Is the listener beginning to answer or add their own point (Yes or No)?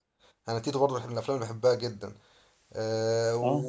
No